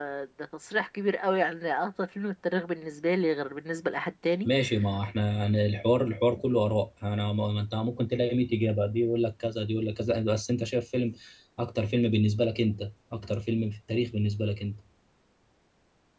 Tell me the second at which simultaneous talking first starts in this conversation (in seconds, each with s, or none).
none